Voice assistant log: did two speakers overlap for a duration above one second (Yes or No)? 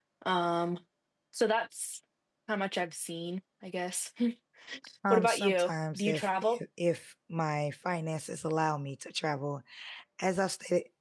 Yes